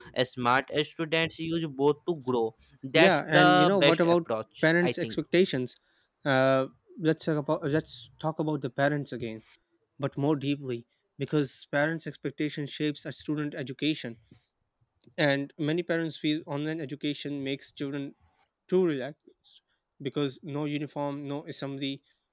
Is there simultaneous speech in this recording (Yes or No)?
Yes